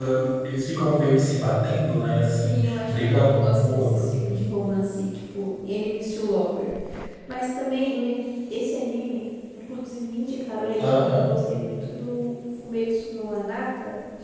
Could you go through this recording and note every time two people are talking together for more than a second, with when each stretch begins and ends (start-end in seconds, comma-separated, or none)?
2.2-4.1